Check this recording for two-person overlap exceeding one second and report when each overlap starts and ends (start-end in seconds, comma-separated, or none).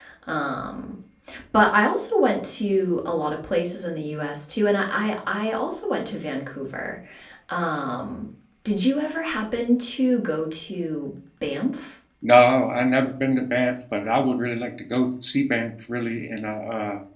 none